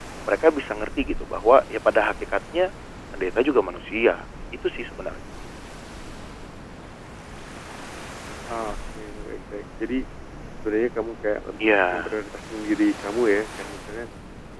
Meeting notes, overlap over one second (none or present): none